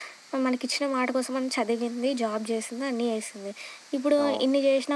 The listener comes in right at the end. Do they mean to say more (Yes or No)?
No